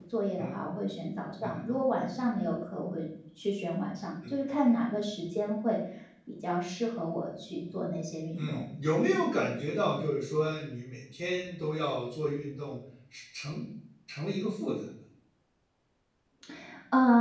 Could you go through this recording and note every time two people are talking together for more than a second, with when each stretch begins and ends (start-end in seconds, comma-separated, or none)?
none